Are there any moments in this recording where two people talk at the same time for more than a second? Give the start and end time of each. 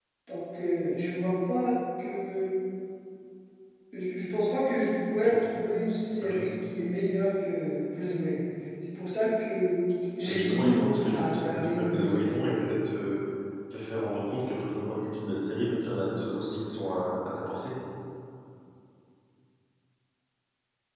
10.2-12.4

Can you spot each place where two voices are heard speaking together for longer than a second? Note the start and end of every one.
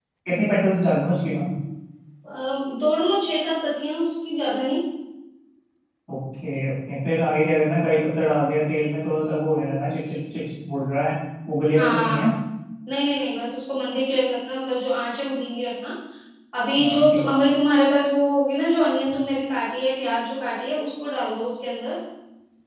none

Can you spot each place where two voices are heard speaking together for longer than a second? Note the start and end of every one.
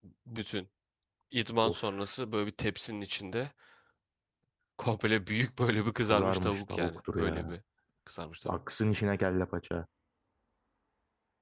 6.0-7.6

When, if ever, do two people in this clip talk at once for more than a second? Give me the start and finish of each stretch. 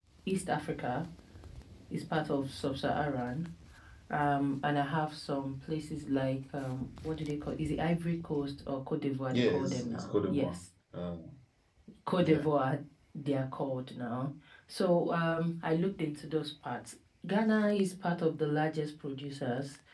9.3-10.6

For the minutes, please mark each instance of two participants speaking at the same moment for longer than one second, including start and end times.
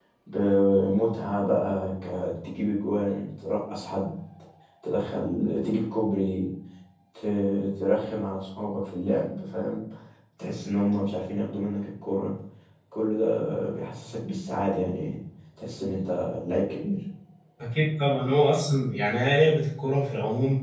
none

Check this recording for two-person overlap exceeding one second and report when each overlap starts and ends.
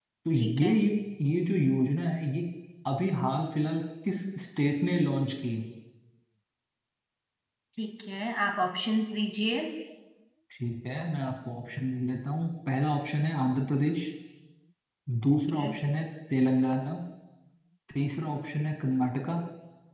none

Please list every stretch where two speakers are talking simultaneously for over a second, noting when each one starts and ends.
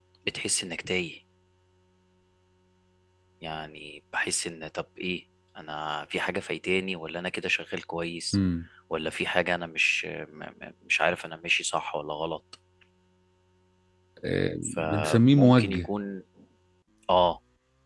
14.6-15.9

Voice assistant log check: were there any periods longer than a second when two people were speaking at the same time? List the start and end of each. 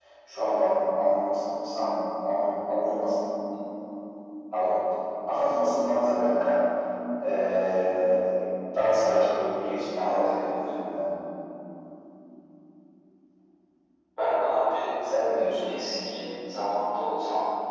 none

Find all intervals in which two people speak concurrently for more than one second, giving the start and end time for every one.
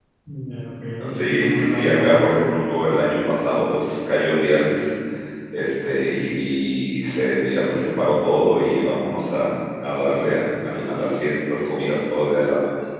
1.1-2.3

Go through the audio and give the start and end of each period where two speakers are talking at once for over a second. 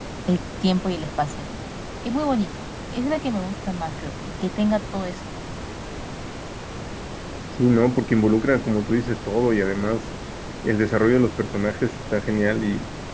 none

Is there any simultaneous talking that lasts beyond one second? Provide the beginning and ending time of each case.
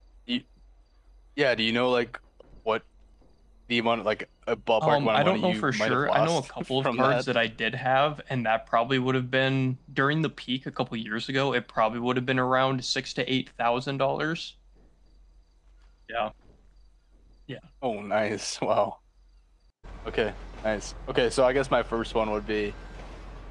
4.8-7.2

